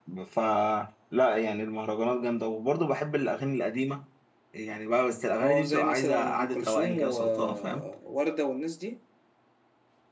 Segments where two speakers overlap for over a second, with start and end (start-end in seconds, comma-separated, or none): 5.4-7.9